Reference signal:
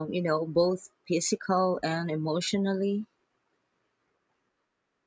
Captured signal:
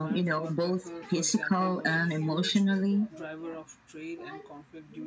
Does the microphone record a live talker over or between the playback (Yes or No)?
Yes